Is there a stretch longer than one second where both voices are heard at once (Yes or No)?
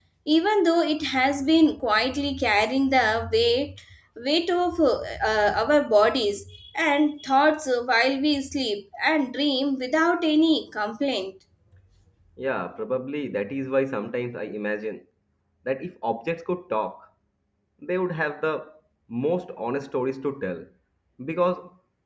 No